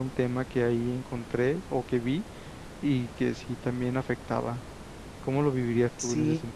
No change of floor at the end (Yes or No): No